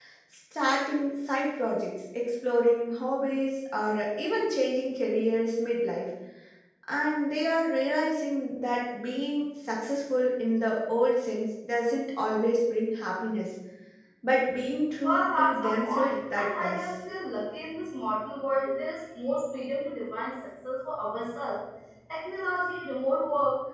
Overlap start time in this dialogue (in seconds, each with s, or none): 15.0 s